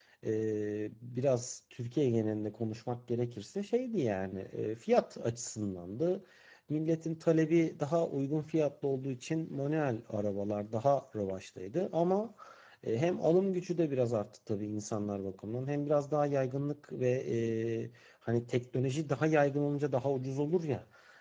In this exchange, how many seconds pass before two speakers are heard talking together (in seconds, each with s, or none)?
none